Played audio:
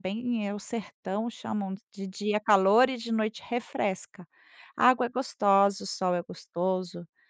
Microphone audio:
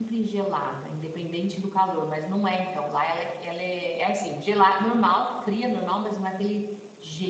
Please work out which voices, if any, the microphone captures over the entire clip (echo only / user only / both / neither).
user only